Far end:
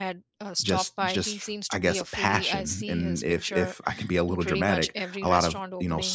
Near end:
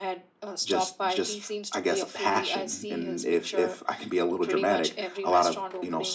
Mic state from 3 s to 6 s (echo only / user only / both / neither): echo only